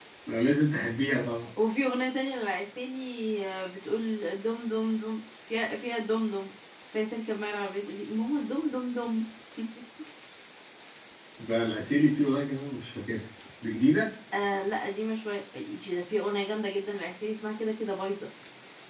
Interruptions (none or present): none